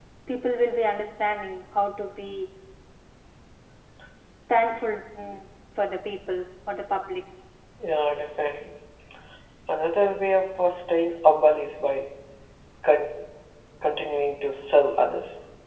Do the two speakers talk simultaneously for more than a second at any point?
No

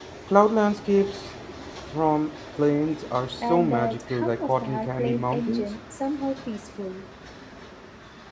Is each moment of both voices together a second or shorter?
No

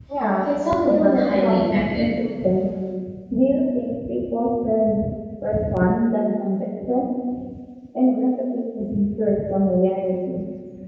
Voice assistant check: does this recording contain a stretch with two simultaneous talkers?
Yes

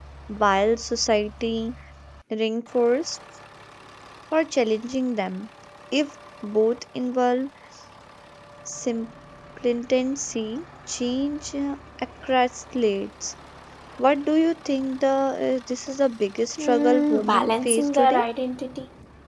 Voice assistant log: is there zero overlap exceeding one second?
No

